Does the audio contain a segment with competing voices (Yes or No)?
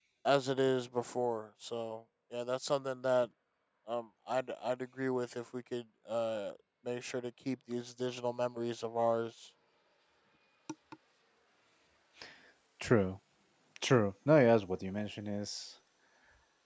No